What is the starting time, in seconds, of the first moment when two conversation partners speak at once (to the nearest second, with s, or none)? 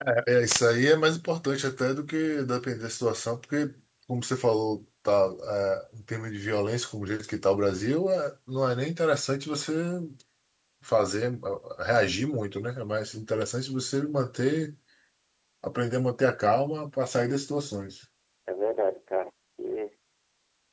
none